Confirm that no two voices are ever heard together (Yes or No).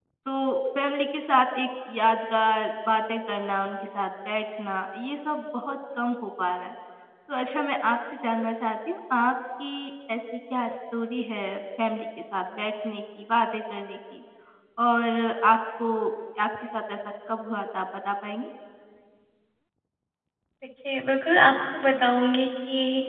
Yes